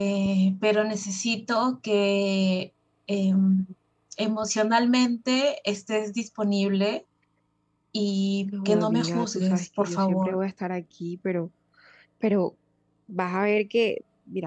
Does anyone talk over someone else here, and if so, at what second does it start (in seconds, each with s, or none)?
8.4 s